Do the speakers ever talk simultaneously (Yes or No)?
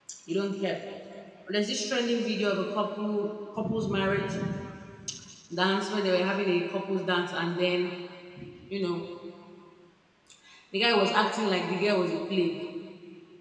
No